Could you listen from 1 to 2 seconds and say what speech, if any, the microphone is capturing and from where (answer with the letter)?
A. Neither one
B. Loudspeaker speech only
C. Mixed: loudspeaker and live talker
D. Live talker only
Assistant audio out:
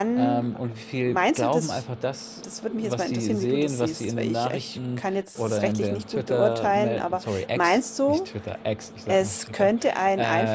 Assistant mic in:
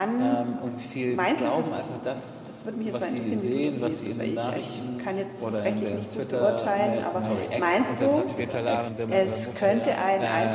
B